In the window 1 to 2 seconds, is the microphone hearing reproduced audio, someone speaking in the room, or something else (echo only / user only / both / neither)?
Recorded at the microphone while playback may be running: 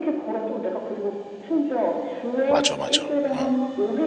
echo only